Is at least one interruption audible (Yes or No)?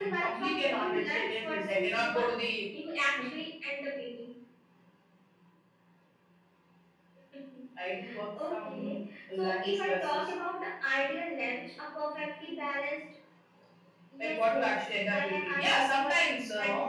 Yes